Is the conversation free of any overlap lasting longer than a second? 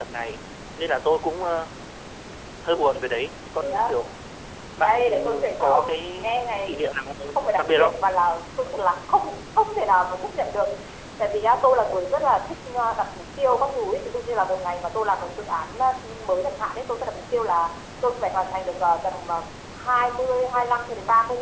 No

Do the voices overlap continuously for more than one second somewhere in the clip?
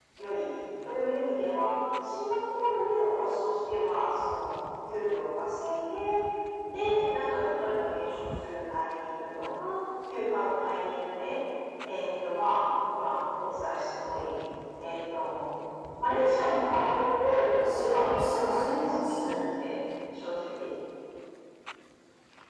Yes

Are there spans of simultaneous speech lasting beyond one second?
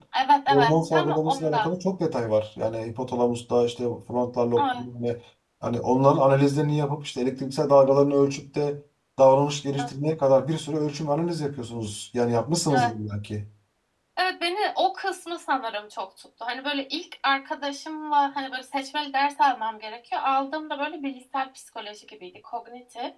Yes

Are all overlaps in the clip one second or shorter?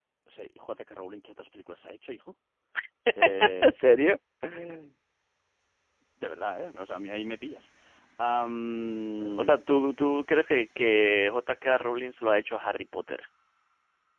Yes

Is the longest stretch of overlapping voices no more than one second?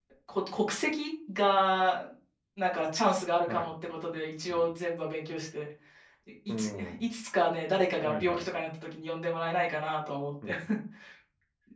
Yes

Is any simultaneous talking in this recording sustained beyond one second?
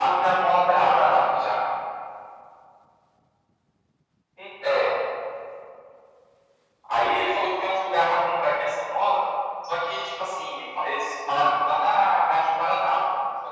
No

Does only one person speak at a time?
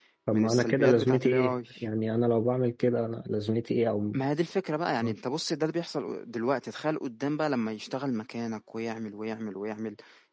No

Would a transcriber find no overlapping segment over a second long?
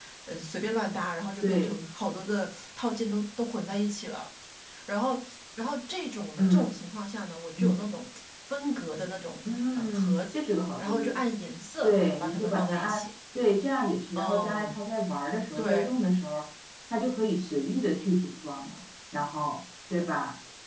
No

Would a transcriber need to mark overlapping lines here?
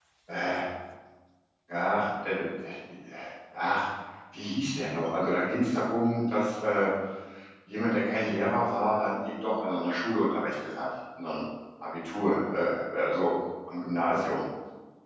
No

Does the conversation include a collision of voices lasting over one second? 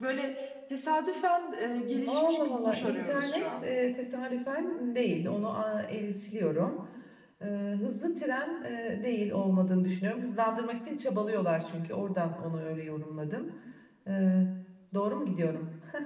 Yes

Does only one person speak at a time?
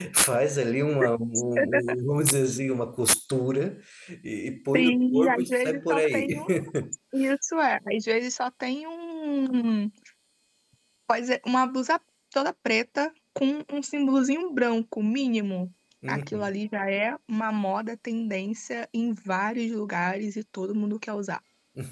No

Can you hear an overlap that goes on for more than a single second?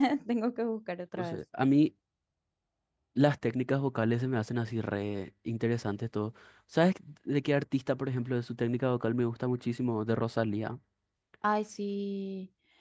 No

